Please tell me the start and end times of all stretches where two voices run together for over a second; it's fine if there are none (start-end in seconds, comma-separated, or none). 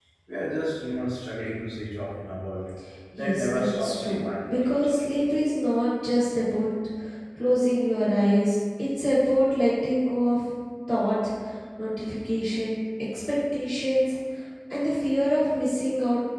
3.2-4.9